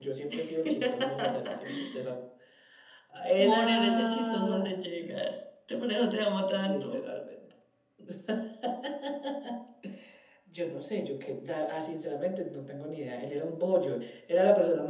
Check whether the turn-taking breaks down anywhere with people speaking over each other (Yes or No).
Yes